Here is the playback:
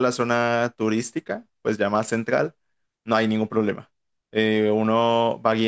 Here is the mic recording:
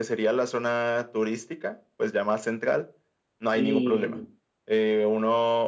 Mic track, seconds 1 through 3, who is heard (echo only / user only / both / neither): echo only